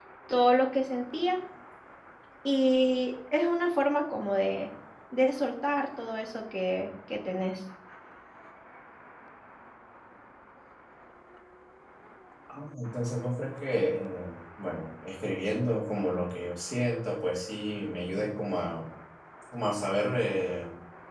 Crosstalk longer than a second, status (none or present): none